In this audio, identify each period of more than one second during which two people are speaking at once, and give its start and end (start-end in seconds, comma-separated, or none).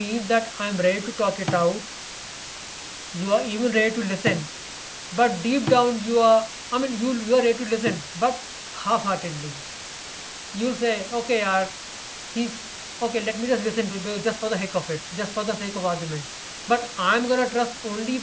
none